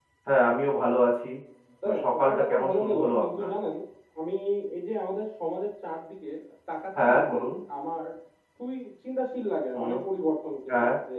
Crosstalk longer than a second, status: present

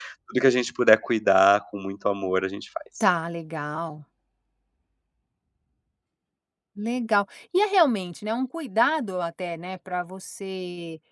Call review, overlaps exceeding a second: none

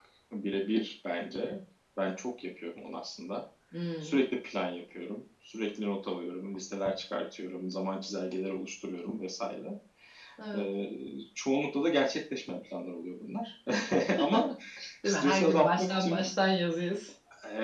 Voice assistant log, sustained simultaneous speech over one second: present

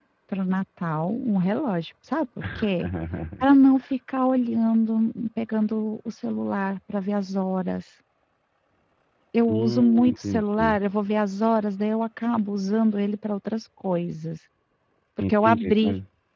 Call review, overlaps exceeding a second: present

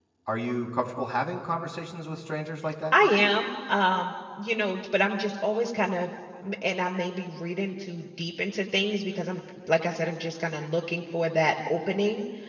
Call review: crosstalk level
none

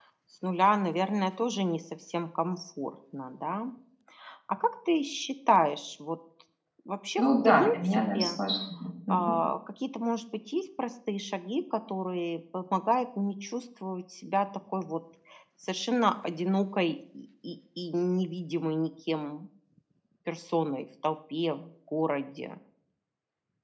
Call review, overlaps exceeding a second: present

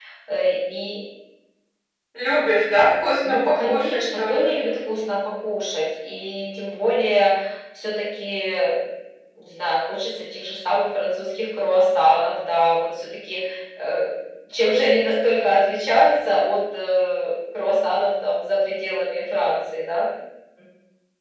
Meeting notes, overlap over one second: present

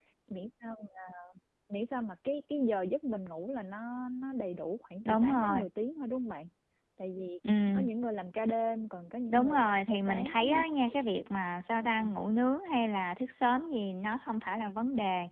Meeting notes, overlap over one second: present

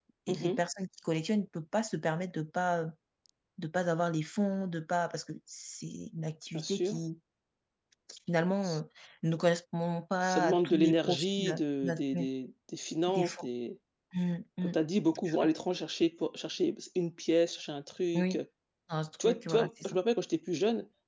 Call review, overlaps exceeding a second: present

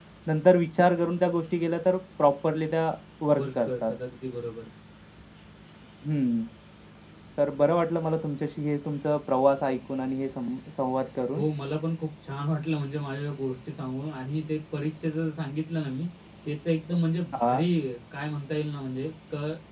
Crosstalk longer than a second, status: none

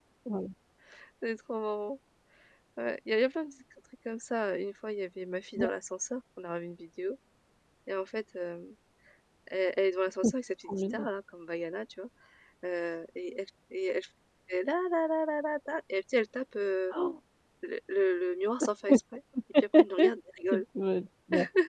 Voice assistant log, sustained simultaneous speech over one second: none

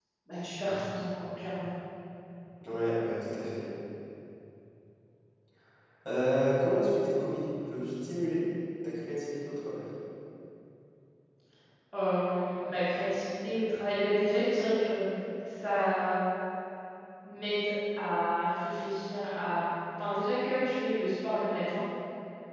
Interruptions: none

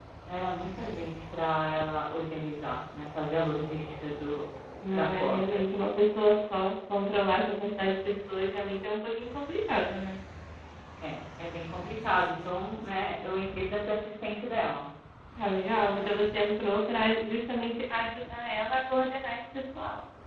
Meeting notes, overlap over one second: none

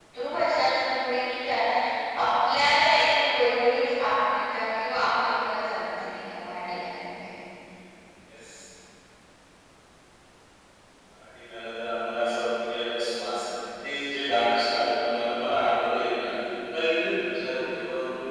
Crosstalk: none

